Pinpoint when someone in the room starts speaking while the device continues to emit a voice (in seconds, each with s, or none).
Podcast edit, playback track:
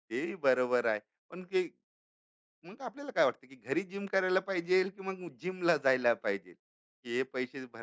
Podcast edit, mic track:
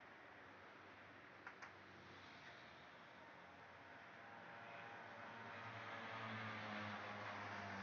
none